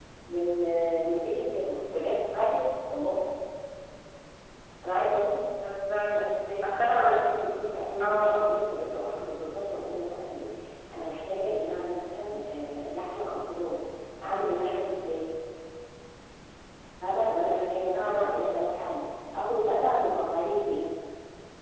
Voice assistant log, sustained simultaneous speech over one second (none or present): none